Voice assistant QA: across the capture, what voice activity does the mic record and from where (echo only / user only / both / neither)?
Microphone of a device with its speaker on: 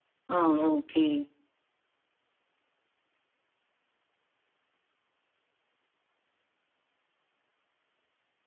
user only